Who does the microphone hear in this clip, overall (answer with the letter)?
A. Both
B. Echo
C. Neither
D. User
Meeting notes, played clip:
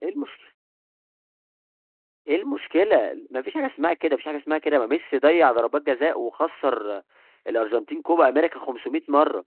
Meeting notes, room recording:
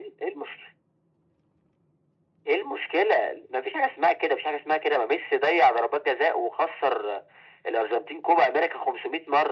B